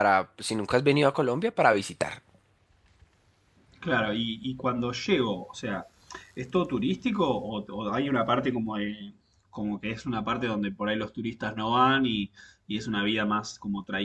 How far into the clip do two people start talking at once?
none

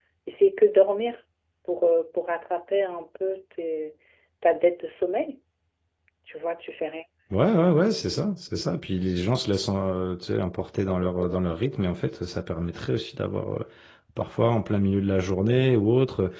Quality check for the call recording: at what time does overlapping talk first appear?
none

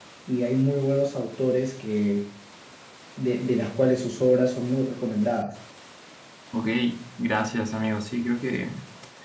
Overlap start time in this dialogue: none

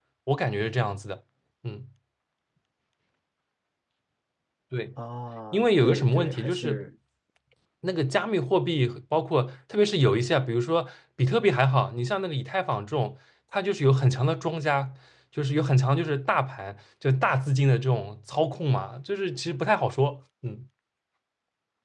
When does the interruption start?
5.5 s

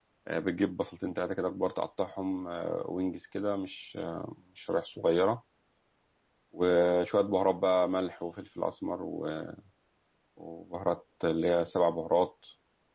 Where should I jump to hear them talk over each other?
none

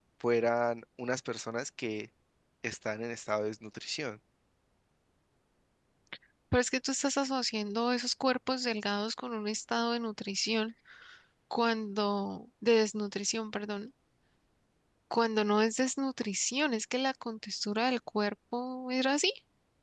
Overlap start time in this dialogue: none

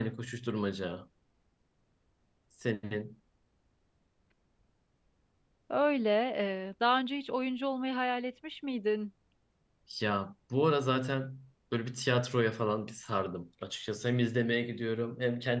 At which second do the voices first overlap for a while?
none

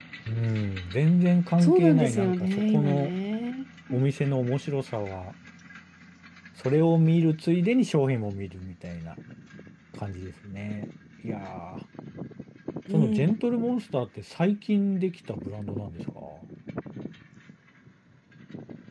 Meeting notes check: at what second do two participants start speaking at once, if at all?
1.6 s

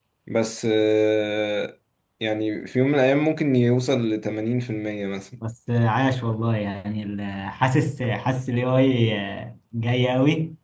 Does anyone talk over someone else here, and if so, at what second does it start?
none

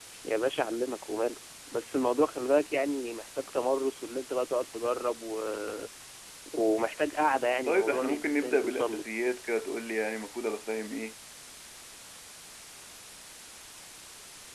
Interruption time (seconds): 7.7 s

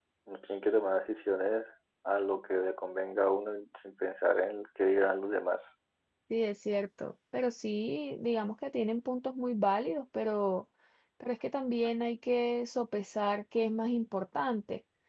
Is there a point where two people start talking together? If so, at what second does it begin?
none

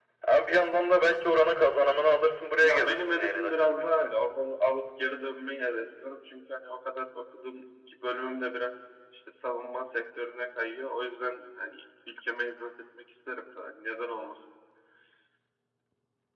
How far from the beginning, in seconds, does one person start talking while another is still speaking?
2.6 s

